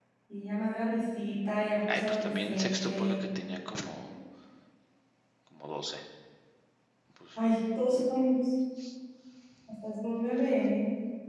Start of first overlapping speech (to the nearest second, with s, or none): 2 s